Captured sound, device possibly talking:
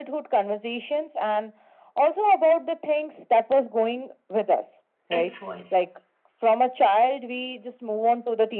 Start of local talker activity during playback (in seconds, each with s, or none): 5.1 s